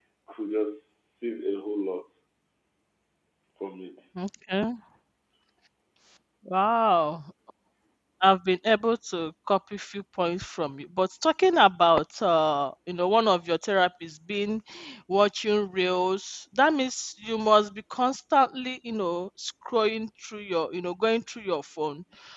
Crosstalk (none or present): none